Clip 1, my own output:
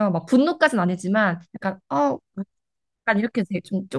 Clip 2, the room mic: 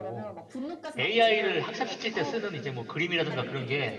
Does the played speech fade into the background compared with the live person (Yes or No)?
Yes